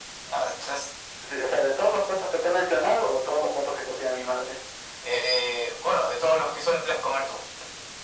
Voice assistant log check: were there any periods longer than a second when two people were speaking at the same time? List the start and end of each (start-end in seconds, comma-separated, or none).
none